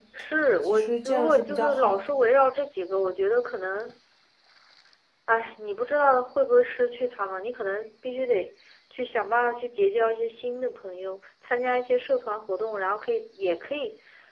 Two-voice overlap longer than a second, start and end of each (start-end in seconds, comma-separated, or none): 0.6-2.1